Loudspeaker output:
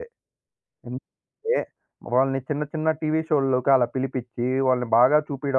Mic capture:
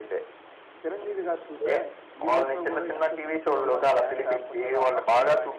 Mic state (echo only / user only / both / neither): both